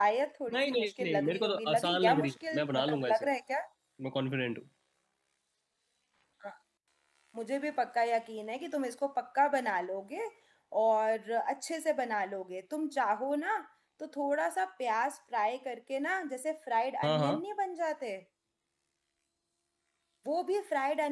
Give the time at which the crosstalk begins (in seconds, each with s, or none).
0.5 s